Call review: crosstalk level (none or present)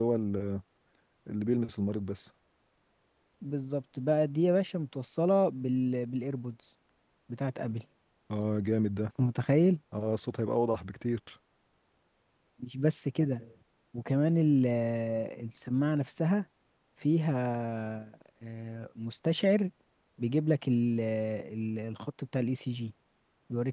none